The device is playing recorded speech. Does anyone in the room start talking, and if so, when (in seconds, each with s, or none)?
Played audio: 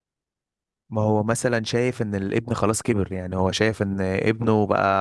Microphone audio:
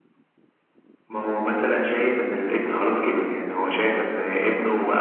none